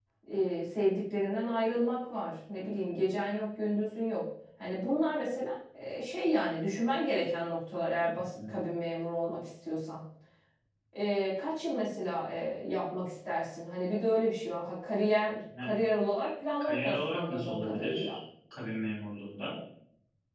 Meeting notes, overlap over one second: present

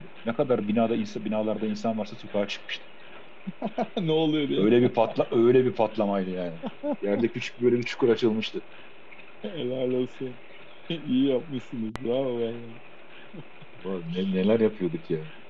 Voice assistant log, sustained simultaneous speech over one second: none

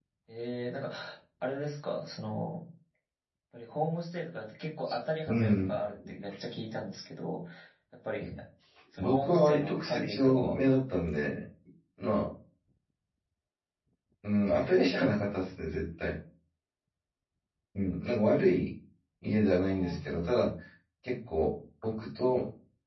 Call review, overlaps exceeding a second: present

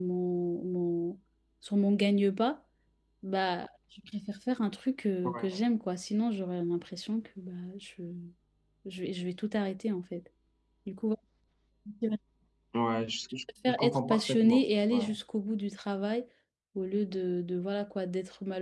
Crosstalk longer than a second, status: present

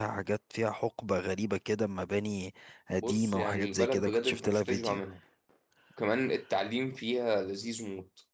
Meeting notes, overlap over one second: present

